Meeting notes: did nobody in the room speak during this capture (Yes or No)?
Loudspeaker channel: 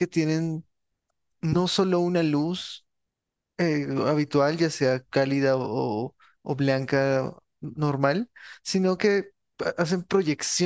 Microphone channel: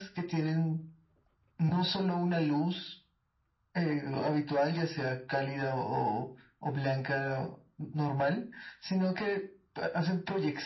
Yes